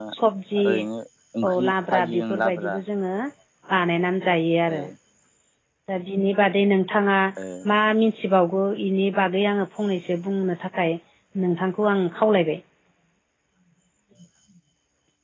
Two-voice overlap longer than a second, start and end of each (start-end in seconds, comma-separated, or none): 1.5-2.7